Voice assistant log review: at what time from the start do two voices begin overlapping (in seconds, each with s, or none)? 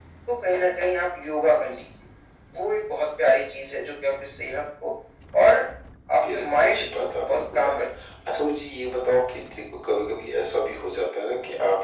6.3 s